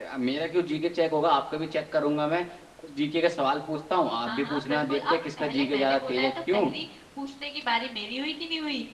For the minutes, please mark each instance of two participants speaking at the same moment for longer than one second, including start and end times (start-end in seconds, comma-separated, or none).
4.2-6.7